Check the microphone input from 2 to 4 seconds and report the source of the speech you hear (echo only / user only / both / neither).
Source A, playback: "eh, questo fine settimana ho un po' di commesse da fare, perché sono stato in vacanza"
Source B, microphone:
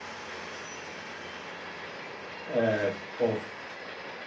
user only